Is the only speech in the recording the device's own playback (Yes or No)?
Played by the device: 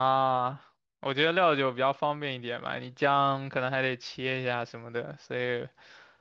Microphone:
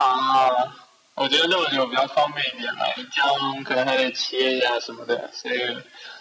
Yes